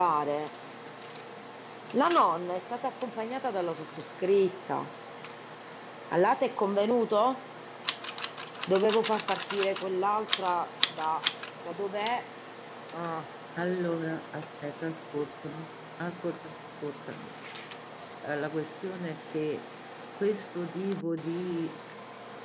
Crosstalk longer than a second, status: none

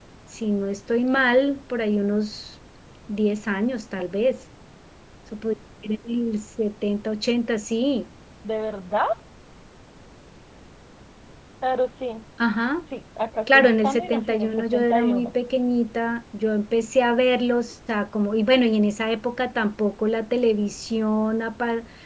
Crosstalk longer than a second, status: present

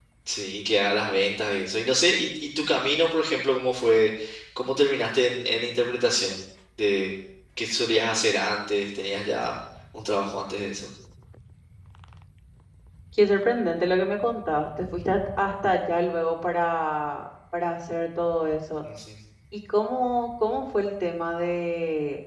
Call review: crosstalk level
none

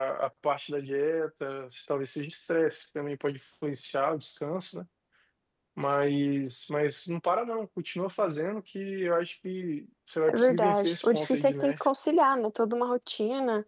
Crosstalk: present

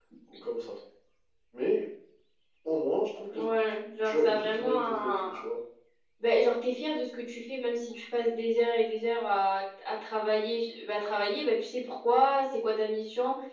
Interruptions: present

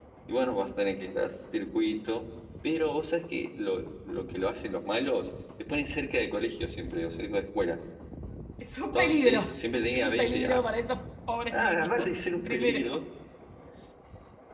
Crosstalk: present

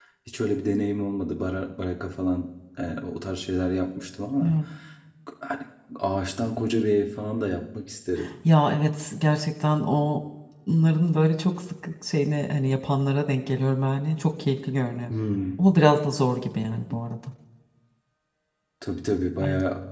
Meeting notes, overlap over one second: none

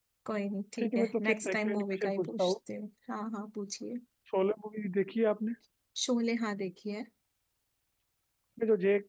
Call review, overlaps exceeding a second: present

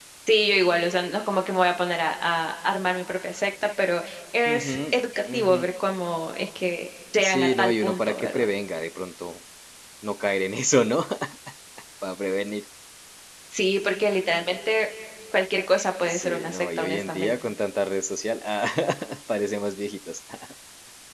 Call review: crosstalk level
present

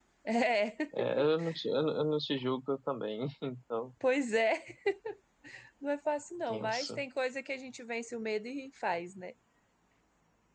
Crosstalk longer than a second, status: none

